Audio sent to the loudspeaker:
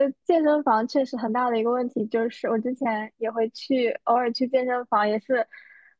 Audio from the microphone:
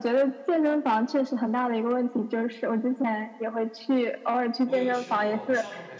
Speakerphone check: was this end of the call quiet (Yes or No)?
No